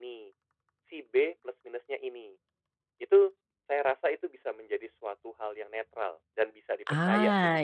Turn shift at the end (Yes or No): Yes